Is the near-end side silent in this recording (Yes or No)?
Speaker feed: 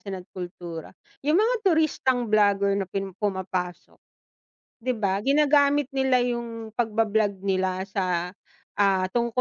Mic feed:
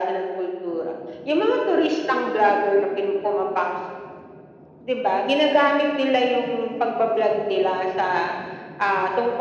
Yes